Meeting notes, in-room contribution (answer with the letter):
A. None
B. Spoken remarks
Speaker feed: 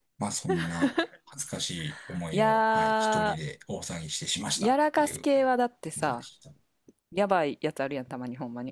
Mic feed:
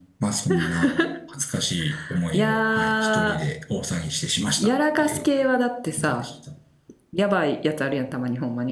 A